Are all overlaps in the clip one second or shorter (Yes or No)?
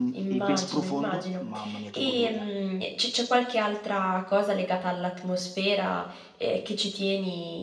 No